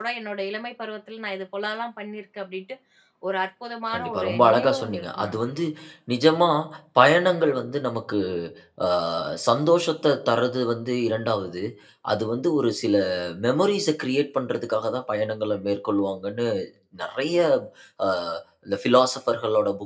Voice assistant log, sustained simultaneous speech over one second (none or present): present